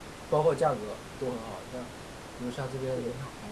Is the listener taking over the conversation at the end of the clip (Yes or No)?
No